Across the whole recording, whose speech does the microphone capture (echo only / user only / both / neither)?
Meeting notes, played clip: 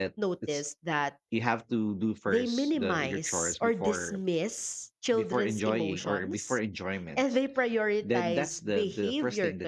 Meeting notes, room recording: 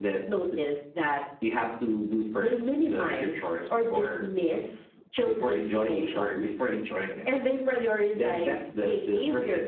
echo only